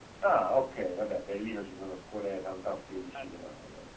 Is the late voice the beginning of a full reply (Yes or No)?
No